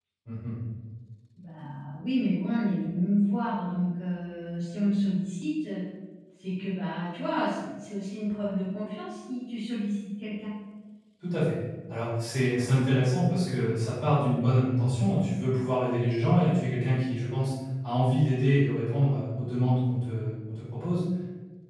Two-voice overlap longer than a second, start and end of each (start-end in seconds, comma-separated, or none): none